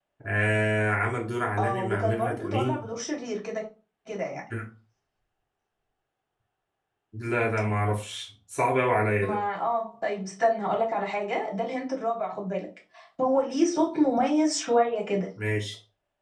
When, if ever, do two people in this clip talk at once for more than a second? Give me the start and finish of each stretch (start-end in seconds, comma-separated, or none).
1.6-2.9